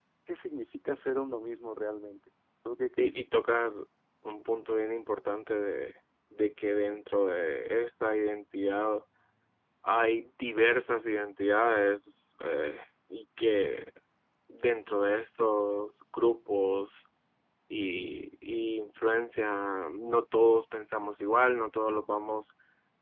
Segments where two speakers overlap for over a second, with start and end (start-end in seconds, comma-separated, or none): none